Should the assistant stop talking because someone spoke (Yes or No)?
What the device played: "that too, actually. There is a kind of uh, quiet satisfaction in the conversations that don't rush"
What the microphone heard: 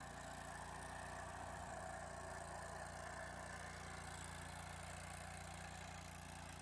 No